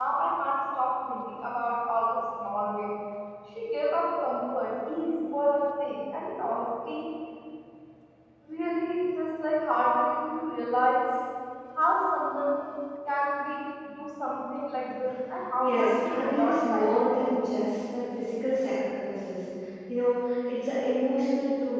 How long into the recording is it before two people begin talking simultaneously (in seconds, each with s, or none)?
15.6 s